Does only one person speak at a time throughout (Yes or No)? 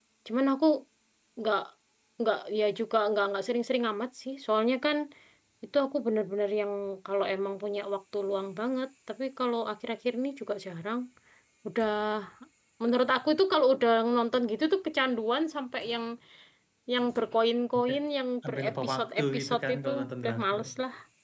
No